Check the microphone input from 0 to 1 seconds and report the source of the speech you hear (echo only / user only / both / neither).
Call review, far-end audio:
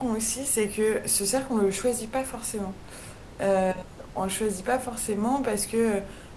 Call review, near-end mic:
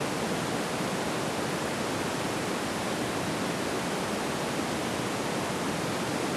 neither